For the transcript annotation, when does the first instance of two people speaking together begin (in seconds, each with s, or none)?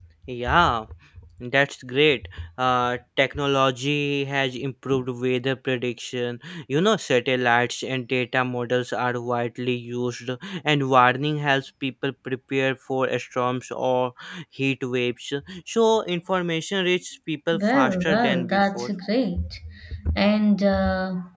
17.5 s